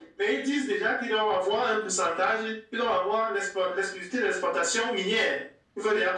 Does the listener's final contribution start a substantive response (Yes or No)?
No